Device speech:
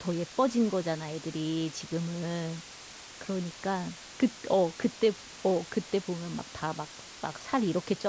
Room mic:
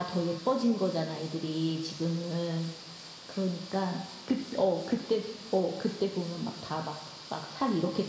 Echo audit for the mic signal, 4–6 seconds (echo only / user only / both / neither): echo only